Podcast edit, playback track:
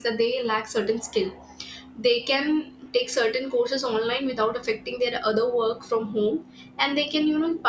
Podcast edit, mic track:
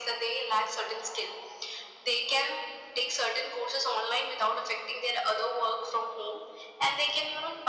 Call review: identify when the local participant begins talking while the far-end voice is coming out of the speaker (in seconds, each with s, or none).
none